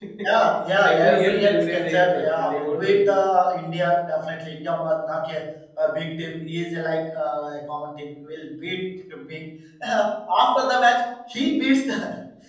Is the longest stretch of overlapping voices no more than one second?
No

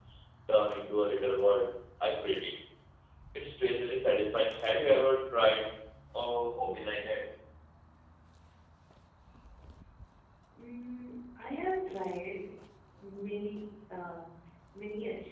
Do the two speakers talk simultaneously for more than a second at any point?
No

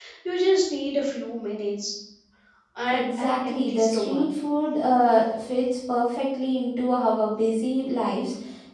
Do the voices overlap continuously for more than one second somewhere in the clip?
Yes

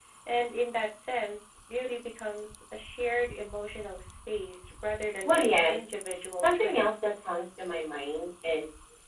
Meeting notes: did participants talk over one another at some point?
Yes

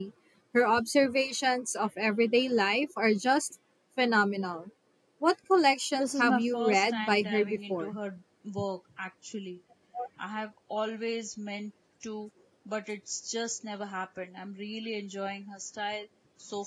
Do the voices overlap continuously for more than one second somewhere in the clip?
Yes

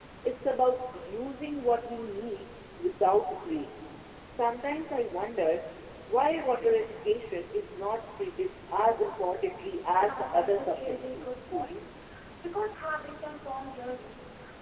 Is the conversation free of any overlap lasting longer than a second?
No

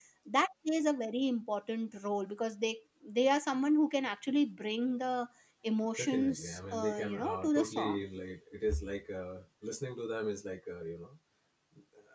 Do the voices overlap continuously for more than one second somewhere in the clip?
Yes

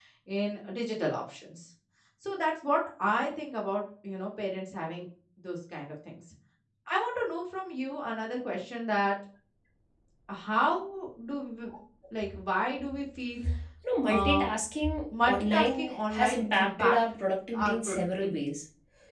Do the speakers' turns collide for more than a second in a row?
Yes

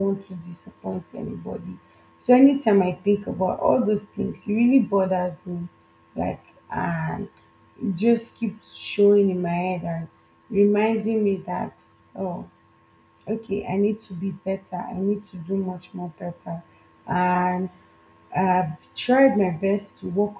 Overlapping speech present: No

